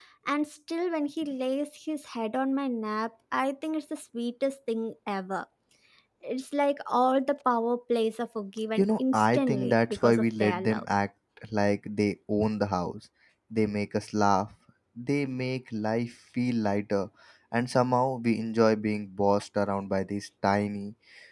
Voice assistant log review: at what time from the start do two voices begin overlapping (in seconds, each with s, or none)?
8.8 s